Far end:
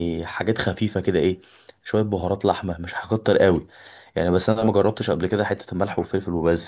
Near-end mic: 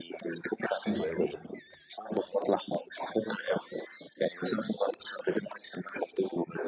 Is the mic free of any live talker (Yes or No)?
No